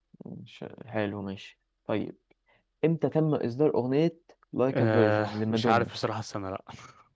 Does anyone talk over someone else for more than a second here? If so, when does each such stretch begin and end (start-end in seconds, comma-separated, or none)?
4.7-5.9